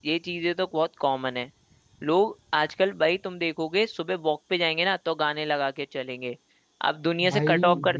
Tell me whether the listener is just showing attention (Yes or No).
Yes